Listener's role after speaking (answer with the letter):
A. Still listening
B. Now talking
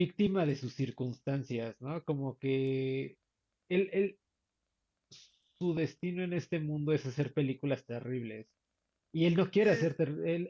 A